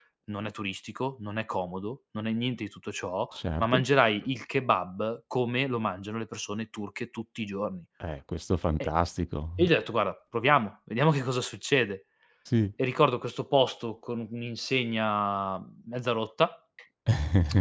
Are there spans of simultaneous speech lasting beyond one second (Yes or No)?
No